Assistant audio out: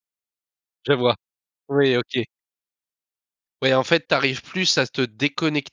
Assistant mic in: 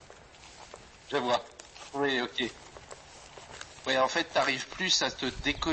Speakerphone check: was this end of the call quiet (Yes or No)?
Yes